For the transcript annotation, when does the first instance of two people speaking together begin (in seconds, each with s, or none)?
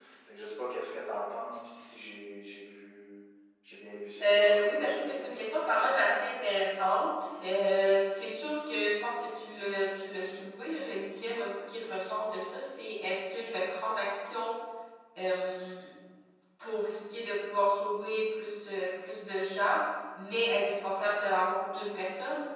4.2 s